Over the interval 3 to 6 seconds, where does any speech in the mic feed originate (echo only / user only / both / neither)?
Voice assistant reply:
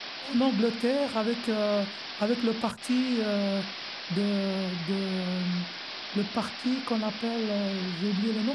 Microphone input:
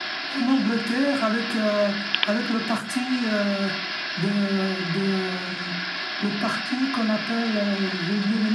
echo only